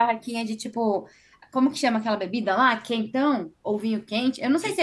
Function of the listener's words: taking over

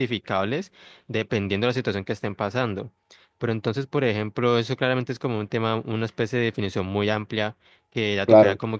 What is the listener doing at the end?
listening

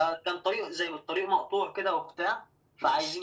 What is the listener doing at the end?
listening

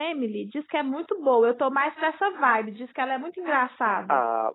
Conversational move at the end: taking over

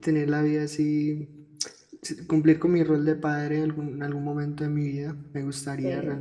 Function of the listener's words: listening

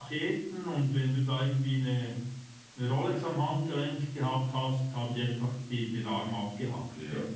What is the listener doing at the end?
taking over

